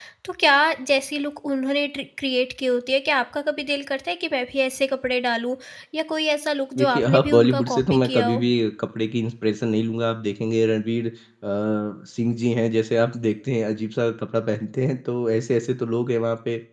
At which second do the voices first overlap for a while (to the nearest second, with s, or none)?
7 s